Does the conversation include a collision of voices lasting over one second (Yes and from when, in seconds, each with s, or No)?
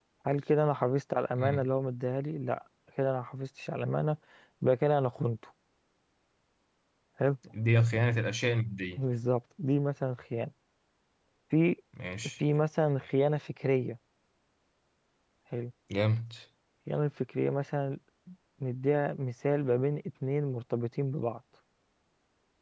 No